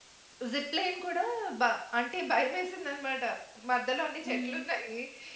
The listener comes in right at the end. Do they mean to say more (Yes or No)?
No